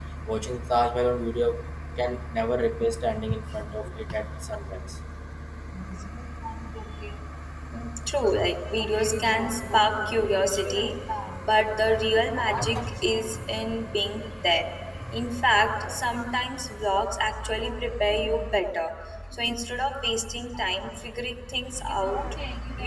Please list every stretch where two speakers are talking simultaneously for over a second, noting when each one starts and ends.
none

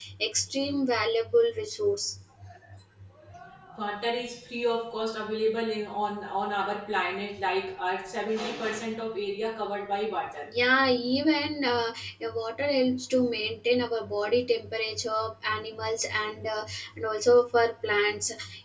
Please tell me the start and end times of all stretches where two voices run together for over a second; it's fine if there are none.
none

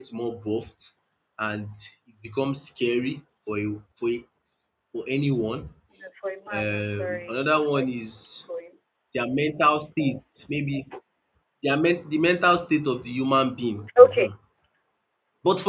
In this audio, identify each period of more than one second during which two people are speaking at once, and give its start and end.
6.5-8.3

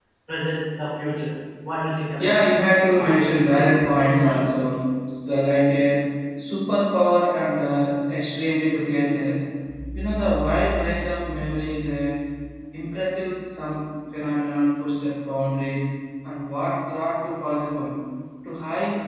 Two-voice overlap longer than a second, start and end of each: 3.0-4.5

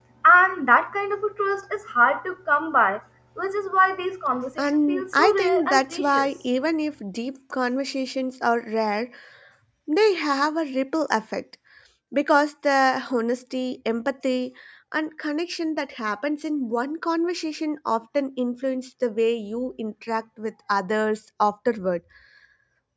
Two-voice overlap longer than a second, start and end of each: 4.6-6.3

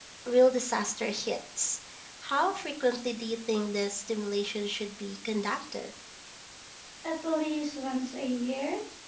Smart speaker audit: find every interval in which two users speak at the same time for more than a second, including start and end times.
none

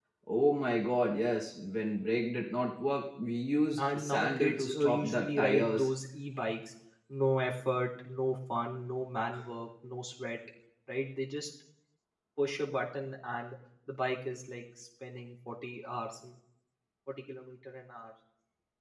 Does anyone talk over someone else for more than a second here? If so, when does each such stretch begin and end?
3.9-5.9

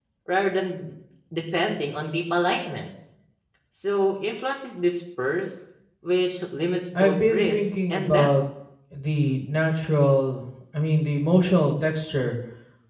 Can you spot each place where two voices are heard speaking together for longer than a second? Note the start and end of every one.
7.0-8.3

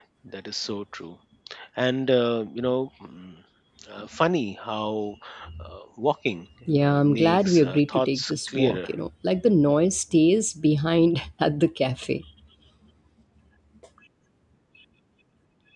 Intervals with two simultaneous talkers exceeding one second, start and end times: 6.8-8.9

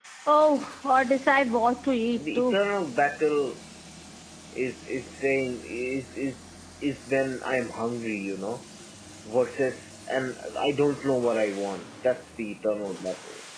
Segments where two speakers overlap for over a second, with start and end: none

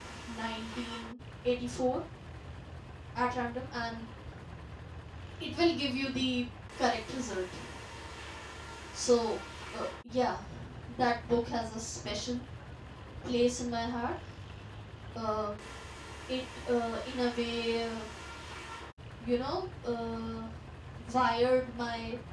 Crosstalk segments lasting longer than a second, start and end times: none

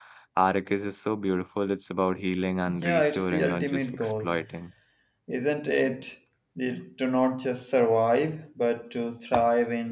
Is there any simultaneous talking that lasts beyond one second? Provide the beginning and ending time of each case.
2.7-4.4

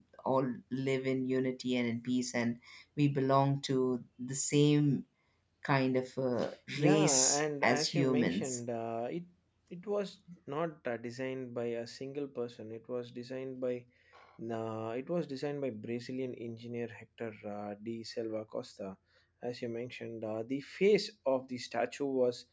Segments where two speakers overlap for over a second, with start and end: 6.8-8.6

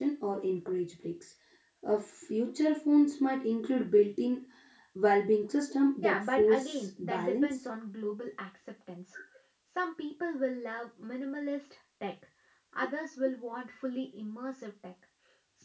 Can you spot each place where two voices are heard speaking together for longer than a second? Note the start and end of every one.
6.0-7.6

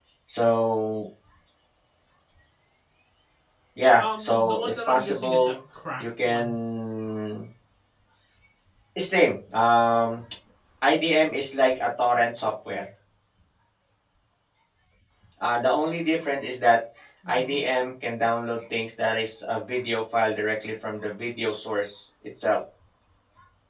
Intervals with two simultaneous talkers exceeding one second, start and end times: 4.0-5.5

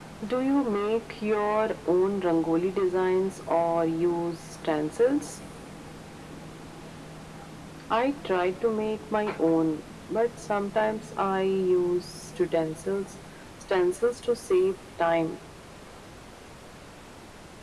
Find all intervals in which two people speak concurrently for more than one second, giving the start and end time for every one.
none

